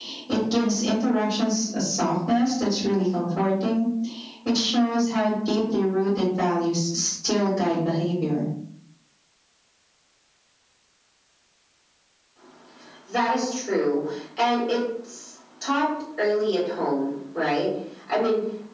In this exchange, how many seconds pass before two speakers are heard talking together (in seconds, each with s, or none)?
none